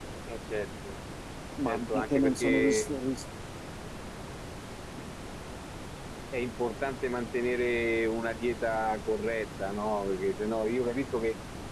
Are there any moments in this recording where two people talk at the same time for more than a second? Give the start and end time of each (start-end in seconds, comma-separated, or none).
1.6-2.9